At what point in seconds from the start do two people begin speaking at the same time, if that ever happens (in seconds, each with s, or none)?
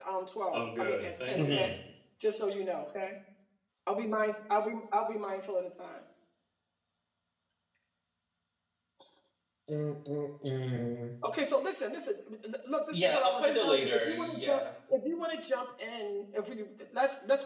0.5 s